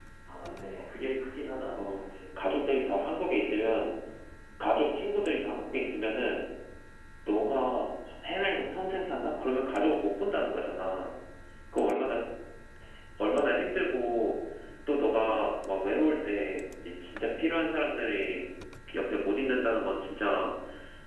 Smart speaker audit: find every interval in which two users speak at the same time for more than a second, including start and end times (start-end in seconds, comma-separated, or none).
none